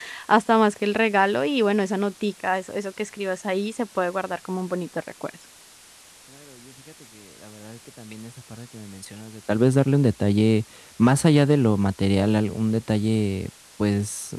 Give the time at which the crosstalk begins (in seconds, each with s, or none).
none